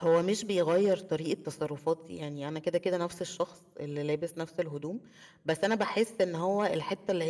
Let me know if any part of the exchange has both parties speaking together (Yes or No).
No